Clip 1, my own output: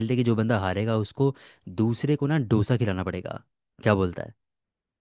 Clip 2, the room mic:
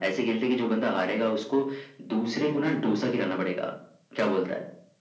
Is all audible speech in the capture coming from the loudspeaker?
Yes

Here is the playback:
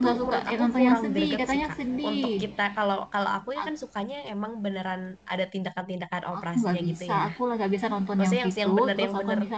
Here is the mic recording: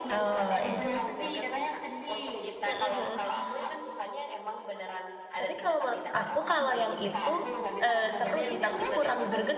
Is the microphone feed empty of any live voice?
No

